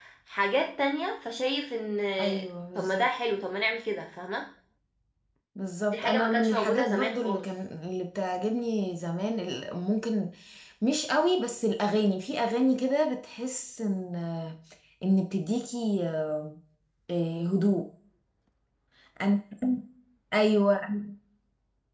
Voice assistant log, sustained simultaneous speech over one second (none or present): present